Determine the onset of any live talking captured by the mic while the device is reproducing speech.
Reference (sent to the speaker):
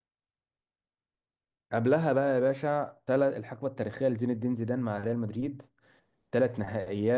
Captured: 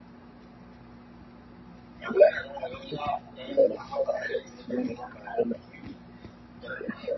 none

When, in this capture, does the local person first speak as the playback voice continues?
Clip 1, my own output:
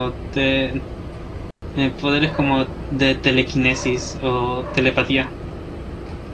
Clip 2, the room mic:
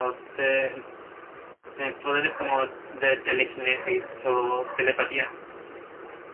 none

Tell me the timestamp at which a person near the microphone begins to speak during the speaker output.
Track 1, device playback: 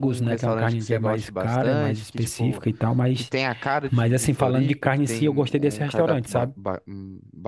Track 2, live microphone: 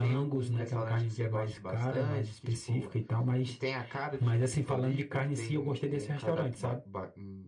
none

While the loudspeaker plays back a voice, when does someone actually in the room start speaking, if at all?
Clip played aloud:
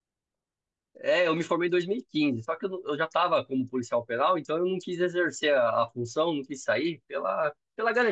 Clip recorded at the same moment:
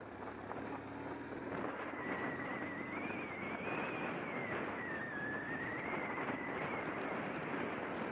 none

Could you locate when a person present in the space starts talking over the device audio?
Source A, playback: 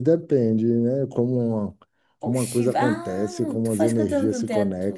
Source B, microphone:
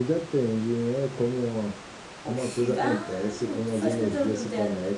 none

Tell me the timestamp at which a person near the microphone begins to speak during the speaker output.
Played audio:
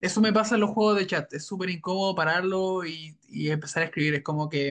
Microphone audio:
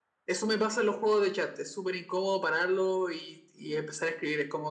none

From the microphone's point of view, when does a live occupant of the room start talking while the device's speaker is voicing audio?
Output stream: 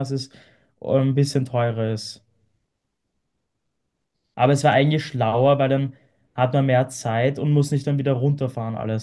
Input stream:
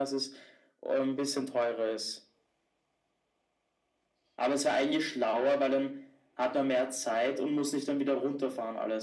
none

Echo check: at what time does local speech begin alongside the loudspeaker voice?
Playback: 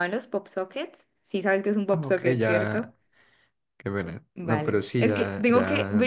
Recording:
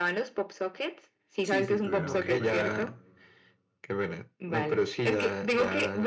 1.4 s

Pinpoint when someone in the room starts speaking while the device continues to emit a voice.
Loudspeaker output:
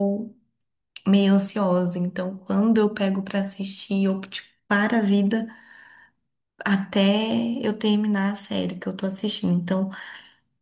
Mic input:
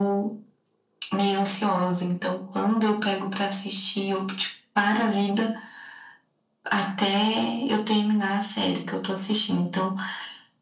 none

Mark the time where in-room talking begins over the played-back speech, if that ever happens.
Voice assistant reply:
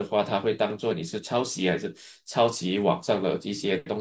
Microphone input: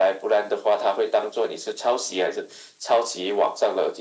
none

